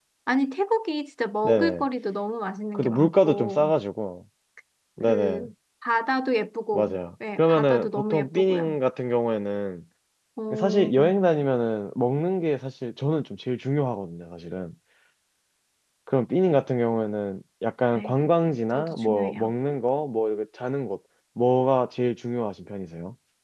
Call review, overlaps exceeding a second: present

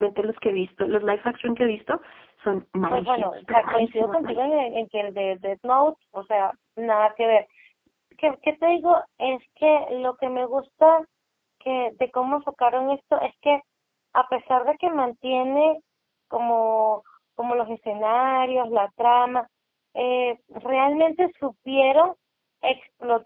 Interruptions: present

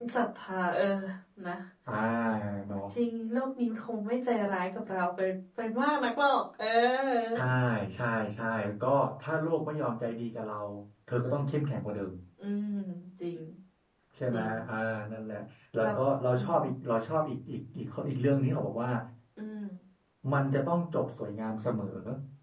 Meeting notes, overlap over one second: none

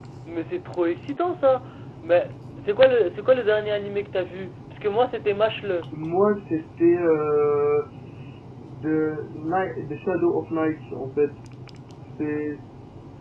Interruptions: none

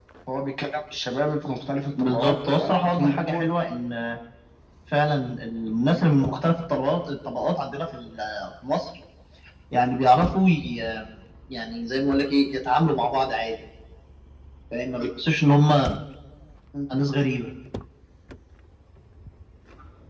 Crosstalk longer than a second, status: present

